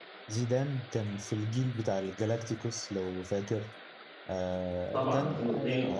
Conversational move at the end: listening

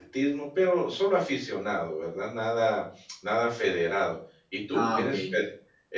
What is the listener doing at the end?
listening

